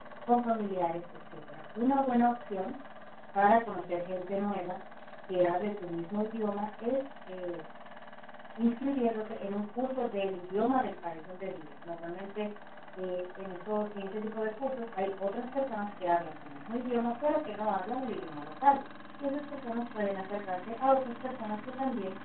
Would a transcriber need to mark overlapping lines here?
No

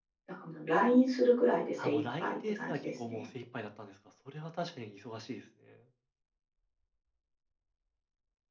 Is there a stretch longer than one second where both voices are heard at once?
Yes, from 1.8 s

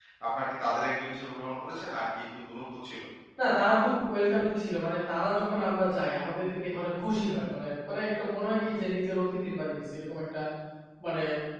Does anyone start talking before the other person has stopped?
No

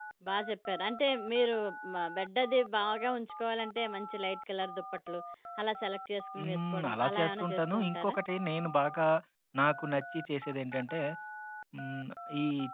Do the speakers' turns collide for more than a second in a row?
Yes, from 6.4 s

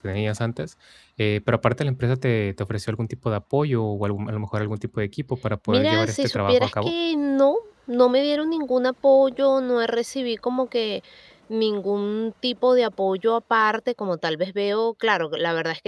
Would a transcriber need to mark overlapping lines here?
Yes, from 5.7 s

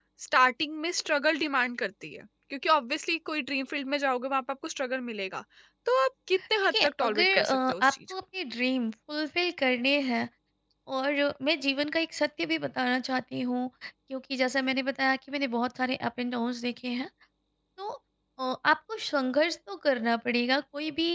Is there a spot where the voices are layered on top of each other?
Yes, from 6.6 s

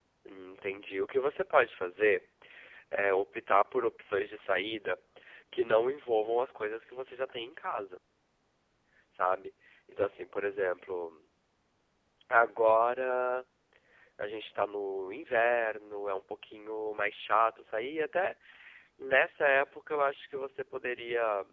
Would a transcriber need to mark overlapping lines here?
No

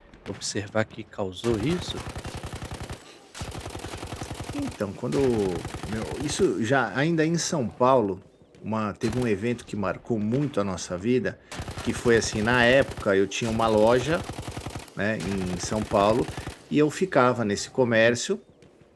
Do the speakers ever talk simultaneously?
No

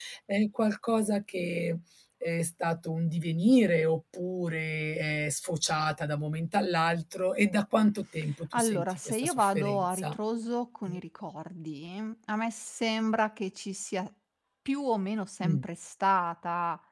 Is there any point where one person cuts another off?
Yes, from 8.5 s

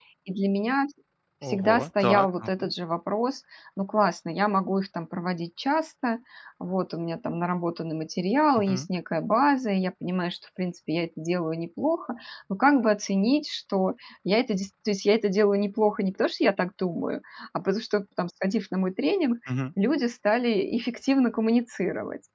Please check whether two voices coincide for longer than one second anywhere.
Yes, from 1.4 s

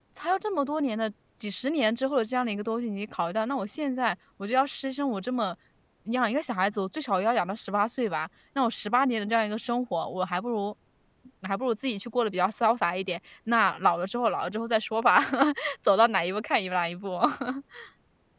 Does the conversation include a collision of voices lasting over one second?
No

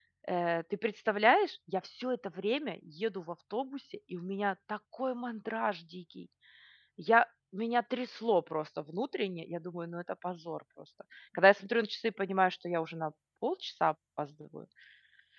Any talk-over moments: No

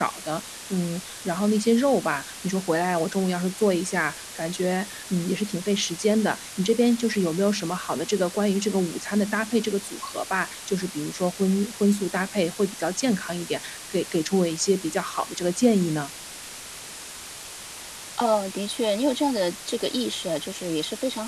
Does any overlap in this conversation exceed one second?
No

